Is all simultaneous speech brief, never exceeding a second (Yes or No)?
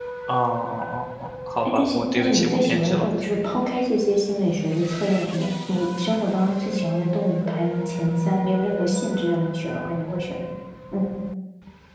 No